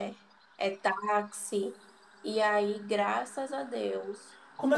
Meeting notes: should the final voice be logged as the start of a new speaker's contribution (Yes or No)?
Yes